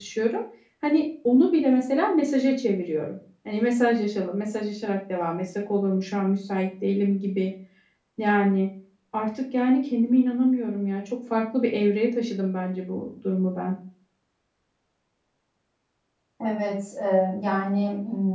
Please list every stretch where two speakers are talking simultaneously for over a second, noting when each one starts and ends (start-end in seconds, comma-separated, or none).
none